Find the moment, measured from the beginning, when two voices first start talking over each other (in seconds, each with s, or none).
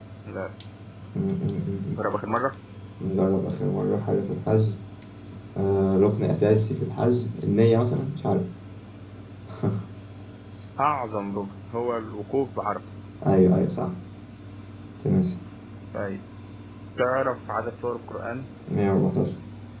none